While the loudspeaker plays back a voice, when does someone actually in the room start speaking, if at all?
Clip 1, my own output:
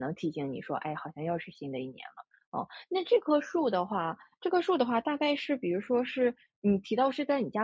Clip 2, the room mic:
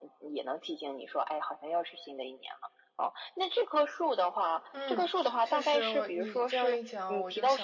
4.7 s

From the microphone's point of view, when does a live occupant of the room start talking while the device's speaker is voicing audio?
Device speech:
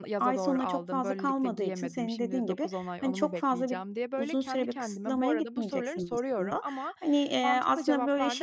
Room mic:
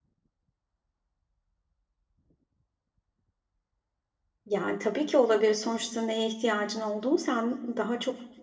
4.5 s

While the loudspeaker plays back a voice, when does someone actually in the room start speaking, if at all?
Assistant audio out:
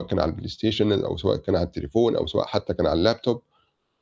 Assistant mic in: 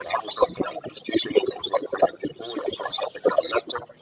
none

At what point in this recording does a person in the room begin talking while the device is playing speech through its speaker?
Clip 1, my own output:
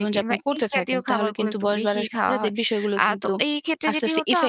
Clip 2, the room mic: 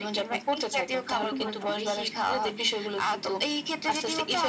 1.3 s

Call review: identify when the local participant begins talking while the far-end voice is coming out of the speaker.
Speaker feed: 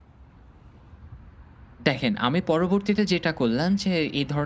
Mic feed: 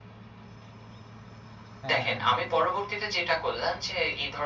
1.8 s

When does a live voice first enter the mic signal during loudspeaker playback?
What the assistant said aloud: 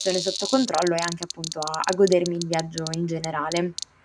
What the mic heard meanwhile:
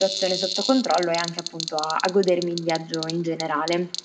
none

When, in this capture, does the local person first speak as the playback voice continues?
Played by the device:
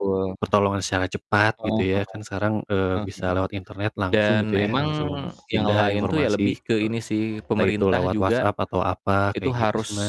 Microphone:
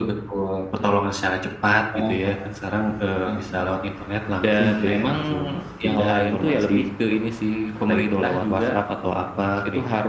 none

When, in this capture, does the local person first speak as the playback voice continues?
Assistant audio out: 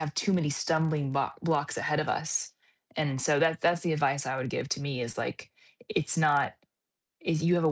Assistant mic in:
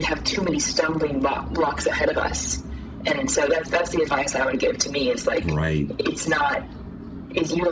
5.4 s

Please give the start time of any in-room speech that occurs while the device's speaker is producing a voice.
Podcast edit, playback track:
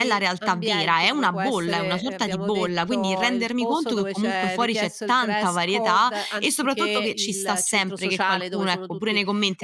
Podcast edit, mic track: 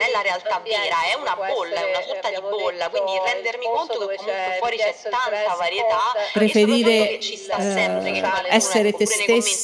6.3 s

